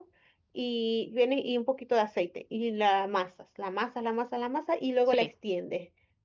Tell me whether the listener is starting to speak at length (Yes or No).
No